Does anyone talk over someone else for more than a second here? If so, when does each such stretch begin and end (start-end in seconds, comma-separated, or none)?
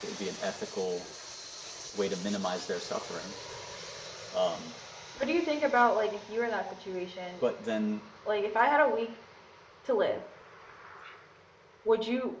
none